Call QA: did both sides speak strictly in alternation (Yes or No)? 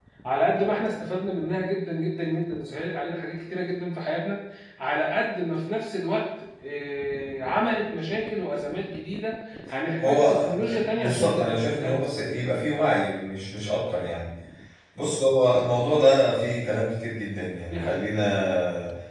No